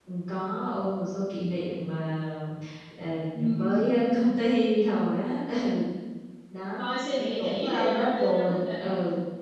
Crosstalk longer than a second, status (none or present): present